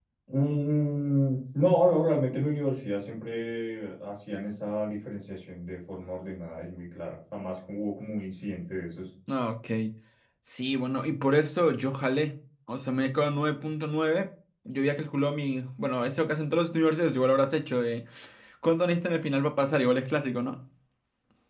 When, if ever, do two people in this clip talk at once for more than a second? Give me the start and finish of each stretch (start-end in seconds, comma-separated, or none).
none